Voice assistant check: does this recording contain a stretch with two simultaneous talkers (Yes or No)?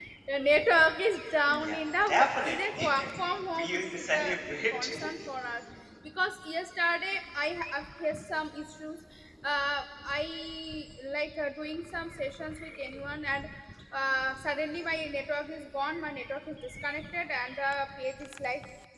Yes